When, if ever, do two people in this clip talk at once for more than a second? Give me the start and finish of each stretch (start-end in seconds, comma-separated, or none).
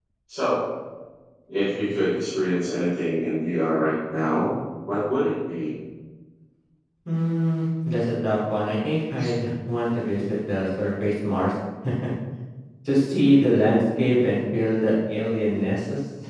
none